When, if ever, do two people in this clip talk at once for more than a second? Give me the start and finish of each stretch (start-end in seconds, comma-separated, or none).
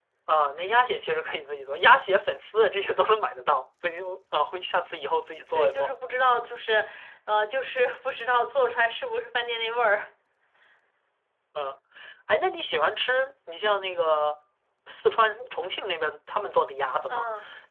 none